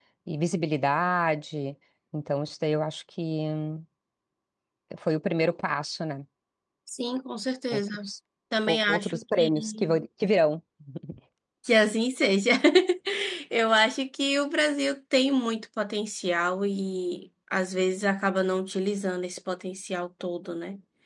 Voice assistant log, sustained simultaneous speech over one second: present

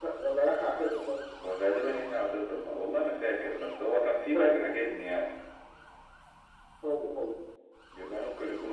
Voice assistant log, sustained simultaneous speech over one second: none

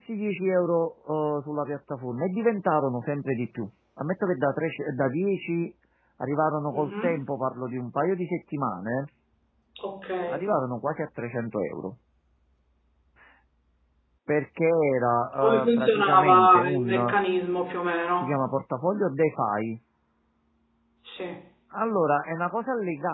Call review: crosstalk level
present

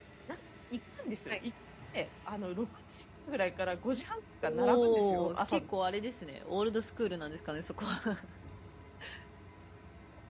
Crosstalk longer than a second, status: present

